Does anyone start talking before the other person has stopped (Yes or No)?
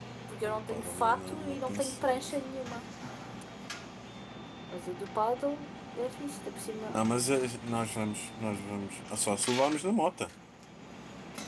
Yes